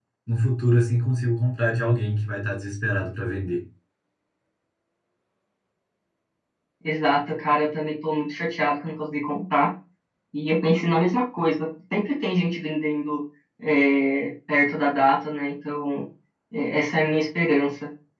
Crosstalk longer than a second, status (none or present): none